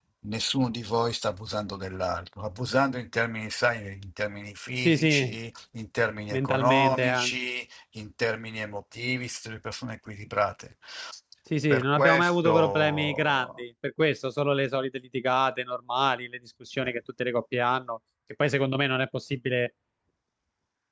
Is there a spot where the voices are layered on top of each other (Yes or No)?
Yes